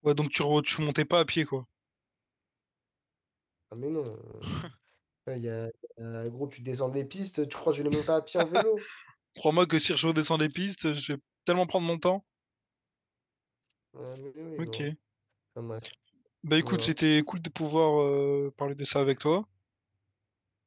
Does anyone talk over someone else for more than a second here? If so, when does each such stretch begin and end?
none

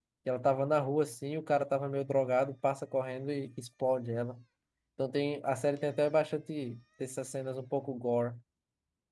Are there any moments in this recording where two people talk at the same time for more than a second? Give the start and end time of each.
none

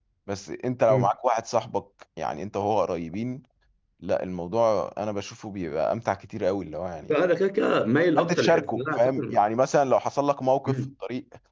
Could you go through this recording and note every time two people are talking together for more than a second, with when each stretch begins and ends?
8.2-9.4

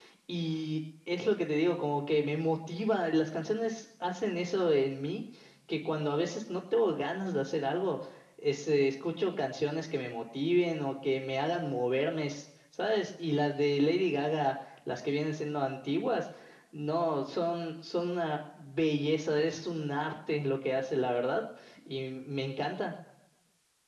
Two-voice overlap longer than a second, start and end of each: none

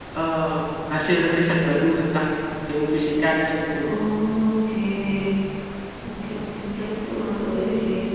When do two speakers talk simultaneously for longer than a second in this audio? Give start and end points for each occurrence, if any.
none

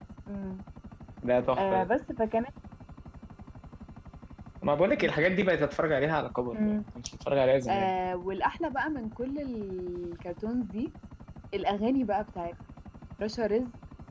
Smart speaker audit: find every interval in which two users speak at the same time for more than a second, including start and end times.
none

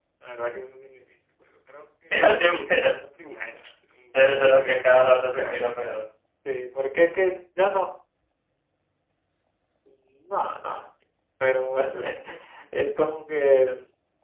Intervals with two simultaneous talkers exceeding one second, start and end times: 4.2-5.6

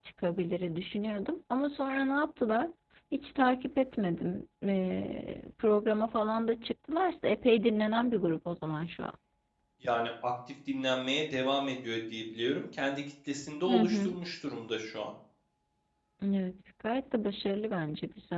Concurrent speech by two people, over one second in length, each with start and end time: none

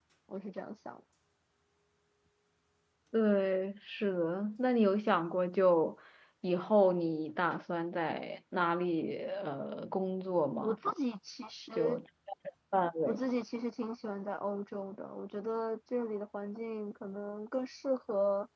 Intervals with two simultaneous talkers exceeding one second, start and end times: none

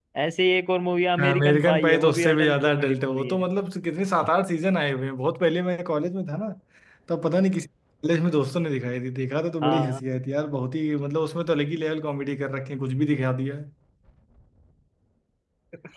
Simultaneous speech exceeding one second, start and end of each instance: 1.2-3.4

